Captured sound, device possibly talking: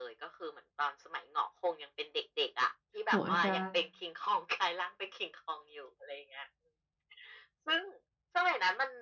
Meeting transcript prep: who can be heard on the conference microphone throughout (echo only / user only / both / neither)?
both